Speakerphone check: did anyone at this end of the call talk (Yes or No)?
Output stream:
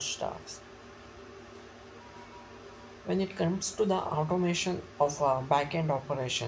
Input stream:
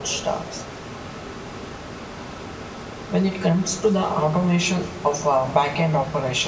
No